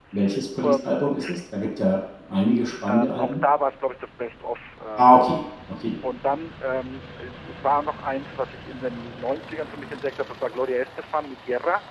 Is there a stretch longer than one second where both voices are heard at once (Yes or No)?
No